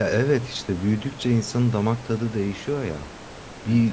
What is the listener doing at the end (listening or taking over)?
listening